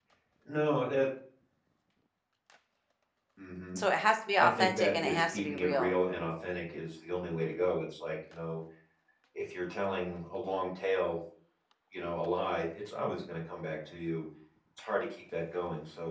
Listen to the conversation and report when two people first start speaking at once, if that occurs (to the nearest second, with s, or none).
4 s